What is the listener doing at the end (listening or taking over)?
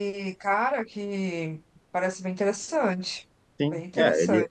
taking over